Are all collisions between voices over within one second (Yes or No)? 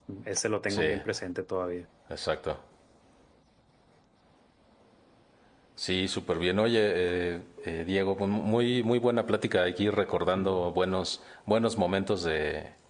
Yes